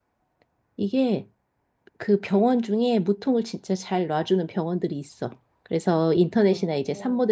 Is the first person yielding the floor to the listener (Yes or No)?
No